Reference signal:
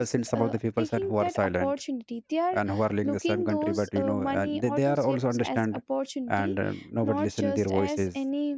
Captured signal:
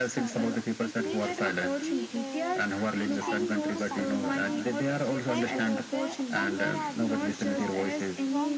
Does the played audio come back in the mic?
Yes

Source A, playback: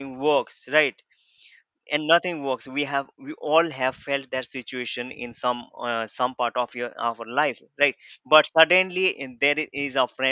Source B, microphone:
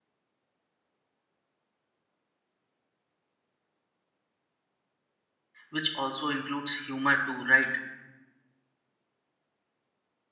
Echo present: No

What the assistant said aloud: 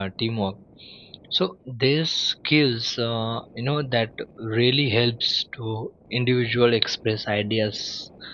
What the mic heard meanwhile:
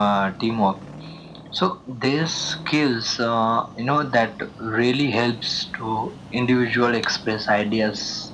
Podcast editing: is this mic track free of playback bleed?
No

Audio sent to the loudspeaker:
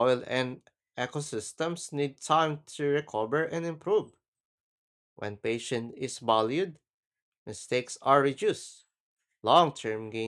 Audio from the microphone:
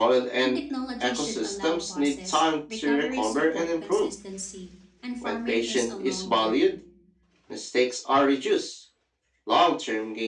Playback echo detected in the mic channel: Yes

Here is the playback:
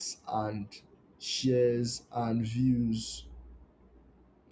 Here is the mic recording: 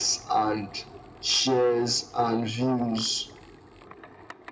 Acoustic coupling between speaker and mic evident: Yes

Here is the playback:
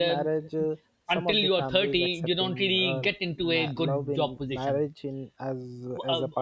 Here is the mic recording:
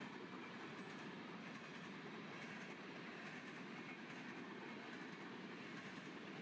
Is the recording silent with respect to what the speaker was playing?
Yes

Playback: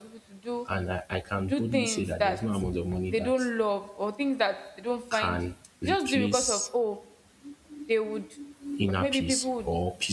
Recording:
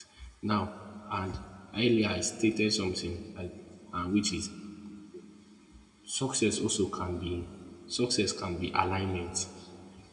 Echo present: No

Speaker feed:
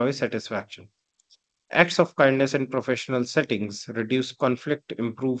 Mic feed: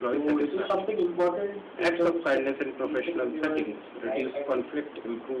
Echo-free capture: No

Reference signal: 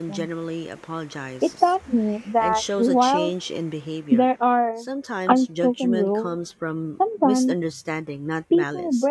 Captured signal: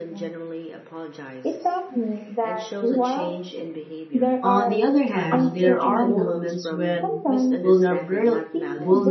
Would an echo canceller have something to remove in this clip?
Yes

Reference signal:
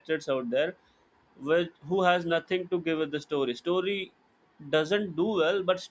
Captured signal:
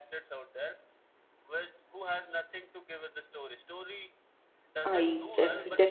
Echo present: Yes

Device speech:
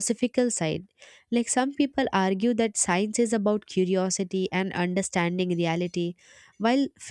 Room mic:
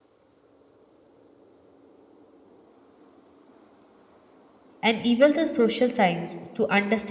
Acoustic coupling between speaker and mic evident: No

